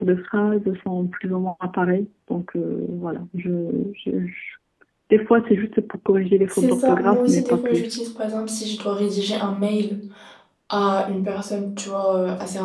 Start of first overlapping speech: 6.5 s

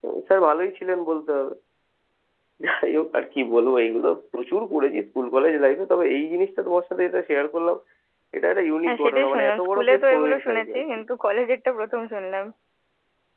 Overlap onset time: 8.9 s

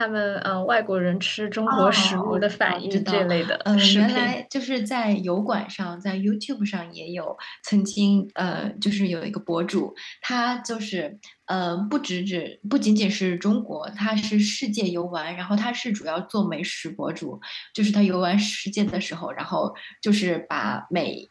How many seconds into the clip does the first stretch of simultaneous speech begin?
1.7 s

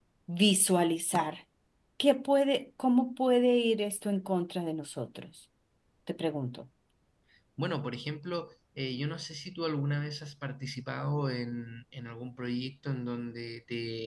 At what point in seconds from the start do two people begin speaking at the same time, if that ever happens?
none

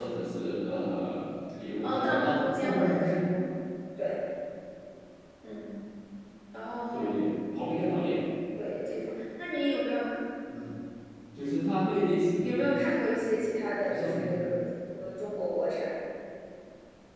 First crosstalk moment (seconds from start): 1.8 s

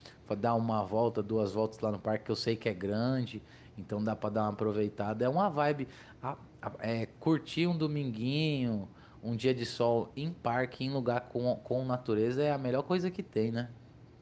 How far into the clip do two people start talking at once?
none

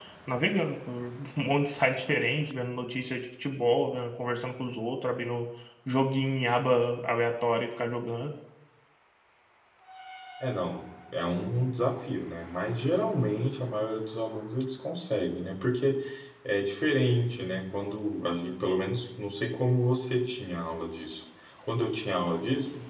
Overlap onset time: none

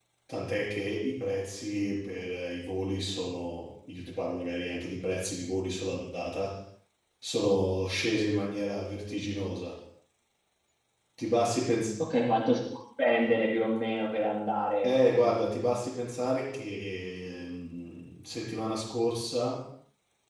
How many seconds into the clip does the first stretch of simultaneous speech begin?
none

